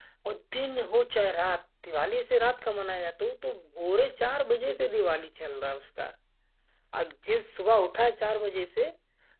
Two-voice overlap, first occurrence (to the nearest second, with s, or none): none